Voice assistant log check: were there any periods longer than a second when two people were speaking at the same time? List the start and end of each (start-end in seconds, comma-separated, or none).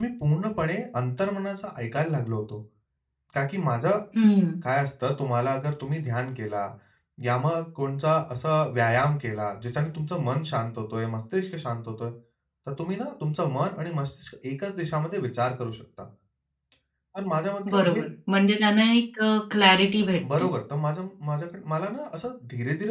none